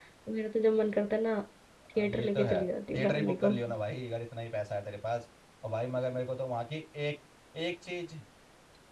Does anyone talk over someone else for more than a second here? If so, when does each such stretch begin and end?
2.0-3.5

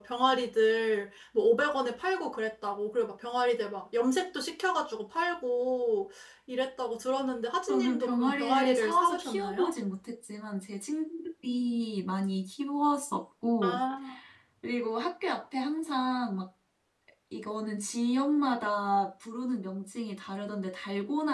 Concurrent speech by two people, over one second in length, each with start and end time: 7.7-9.7

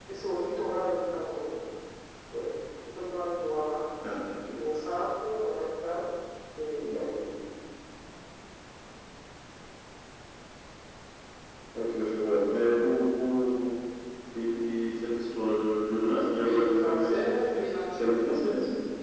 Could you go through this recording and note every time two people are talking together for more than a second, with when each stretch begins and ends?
16.4-18.1

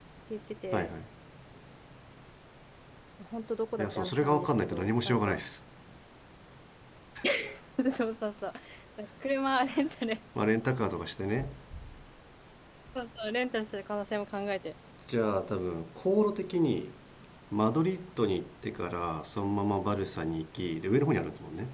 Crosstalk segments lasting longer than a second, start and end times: 3.8-5.4

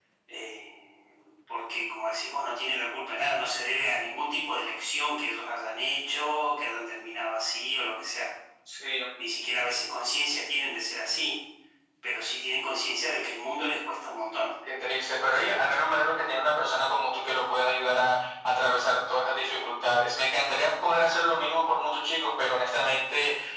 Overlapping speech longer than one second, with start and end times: none

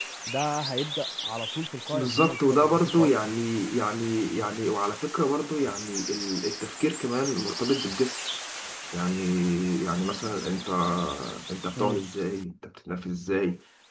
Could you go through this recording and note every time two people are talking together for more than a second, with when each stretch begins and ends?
1.9-3.3

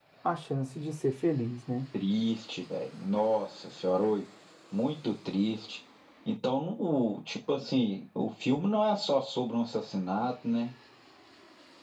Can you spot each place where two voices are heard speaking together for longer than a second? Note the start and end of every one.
none

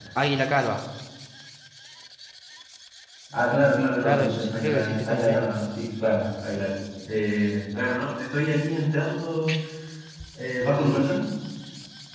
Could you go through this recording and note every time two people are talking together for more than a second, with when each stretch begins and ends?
4.0-5.5

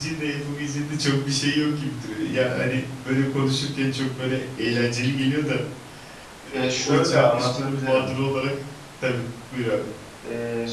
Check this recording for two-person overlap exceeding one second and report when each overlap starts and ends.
6.5-8.1

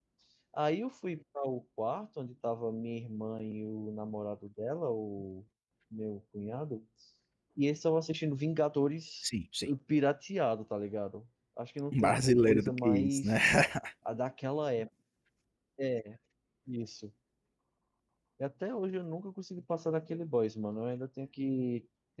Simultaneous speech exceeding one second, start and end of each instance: 11.9-13.3

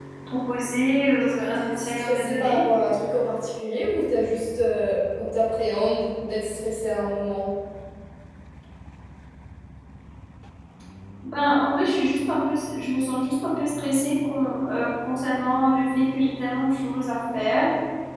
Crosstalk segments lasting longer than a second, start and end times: 1.2-2.6

